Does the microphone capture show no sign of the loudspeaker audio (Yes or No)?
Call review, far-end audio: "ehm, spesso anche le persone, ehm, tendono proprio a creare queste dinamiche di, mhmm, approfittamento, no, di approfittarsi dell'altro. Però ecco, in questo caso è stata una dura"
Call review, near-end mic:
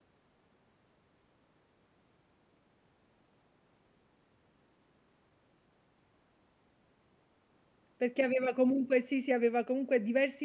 Yes